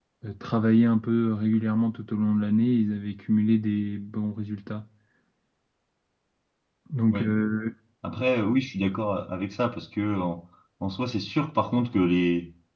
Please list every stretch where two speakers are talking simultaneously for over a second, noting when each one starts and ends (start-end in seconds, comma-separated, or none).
none